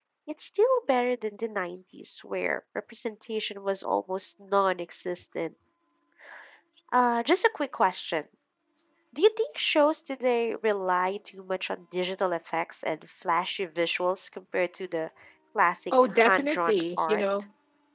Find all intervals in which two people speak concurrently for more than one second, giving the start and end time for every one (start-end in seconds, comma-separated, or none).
15.9-17.2